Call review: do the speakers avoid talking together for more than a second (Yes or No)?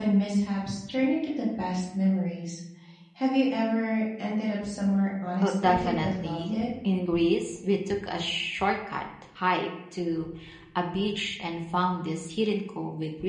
No